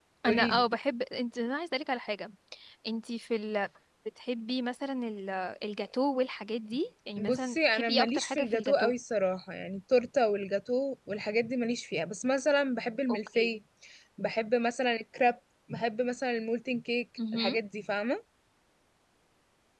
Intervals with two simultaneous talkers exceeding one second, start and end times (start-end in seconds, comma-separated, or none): 7.2-8.9